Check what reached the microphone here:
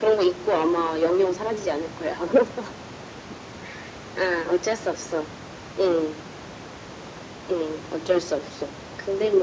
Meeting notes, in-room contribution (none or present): none